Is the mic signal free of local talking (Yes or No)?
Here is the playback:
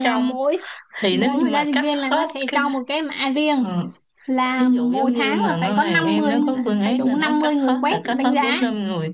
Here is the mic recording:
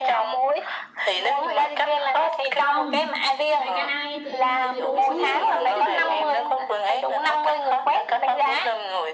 No